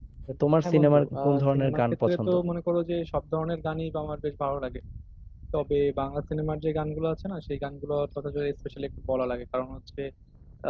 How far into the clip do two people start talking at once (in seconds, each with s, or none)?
0.6 s